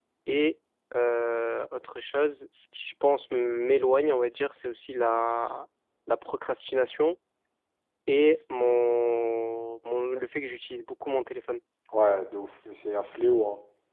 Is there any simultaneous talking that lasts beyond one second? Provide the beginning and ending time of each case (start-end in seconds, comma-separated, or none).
none